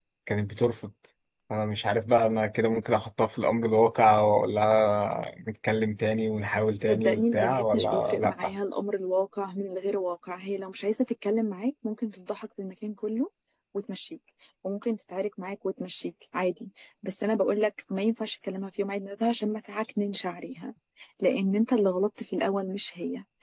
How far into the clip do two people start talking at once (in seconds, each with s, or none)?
6.9 s